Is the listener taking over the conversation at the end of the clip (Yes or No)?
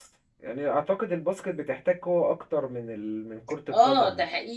Yes